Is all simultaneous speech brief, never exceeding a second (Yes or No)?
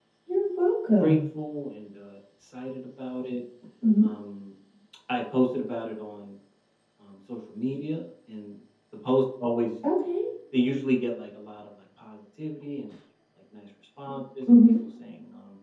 Yes